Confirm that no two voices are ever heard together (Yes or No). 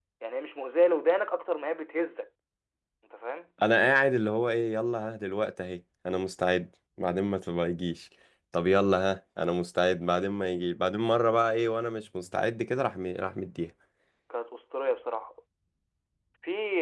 Yes